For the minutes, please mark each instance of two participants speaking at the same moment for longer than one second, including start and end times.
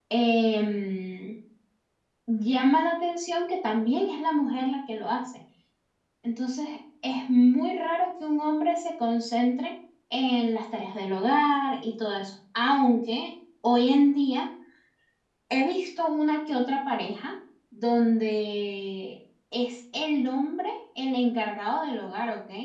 none

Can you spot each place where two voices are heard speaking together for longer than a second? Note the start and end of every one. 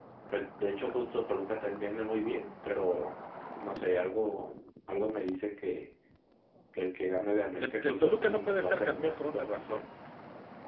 7.6-9.8

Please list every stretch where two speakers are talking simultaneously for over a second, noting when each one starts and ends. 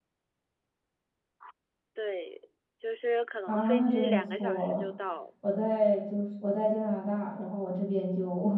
3.5-4.8

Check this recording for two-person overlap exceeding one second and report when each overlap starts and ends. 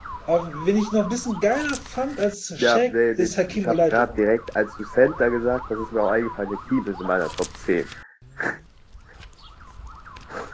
2.6-4.2

